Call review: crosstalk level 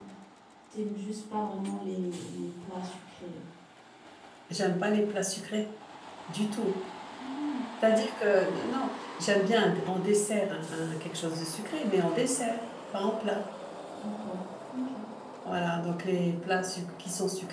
none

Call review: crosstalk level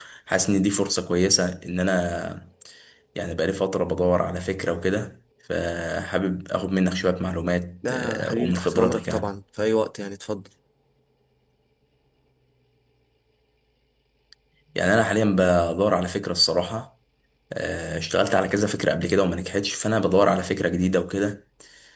present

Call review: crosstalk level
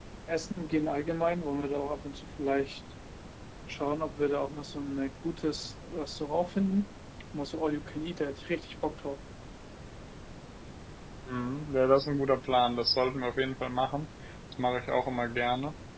none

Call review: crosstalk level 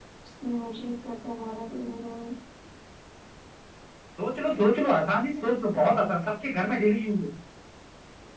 none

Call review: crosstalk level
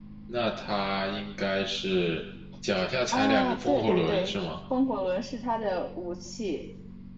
present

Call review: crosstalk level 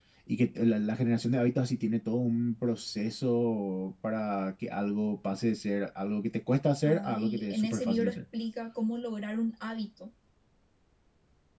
present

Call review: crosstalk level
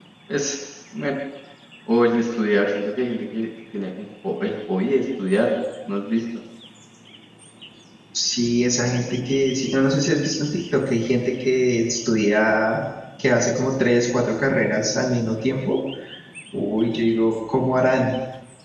none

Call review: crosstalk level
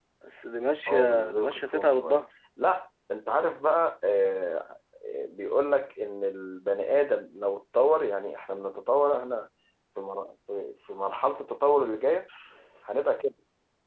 present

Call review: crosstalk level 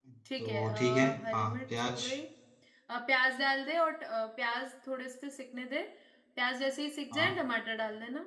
present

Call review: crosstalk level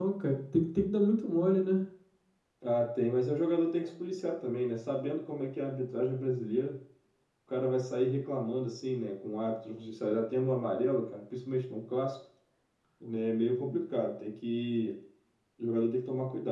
none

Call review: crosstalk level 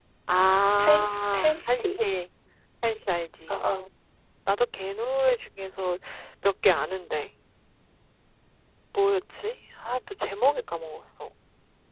present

